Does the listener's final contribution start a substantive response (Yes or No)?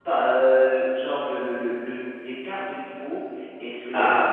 No